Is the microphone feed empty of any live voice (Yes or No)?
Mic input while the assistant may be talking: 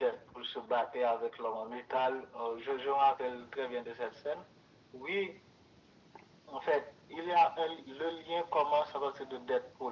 Yes